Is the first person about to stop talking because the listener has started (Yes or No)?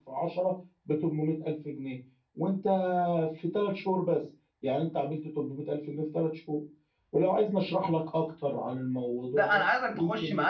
Yes